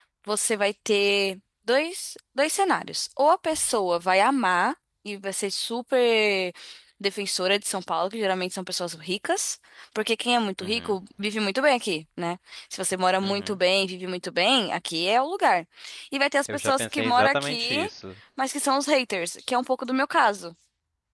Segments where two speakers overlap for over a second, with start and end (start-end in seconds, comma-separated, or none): 16.5-17.9